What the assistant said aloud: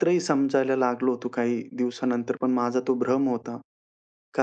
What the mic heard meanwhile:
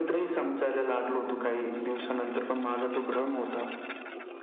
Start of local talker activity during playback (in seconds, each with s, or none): none